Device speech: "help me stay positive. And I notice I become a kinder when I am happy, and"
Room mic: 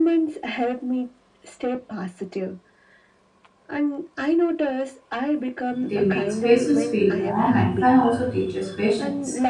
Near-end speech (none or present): present